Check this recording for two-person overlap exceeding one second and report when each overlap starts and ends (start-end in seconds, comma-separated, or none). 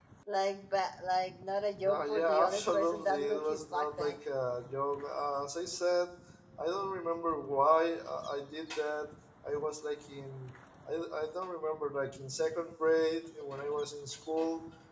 1.8-4.2